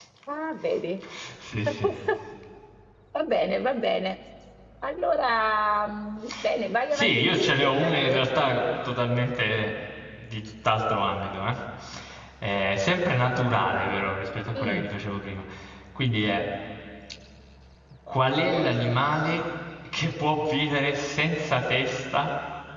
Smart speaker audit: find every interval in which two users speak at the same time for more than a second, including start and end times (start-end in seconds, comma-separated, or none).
6.9-8.2